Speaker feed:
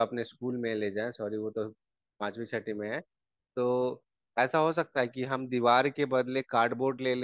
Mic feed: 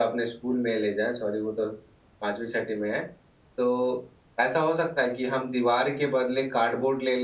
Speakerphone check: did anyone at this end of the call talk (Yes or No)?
No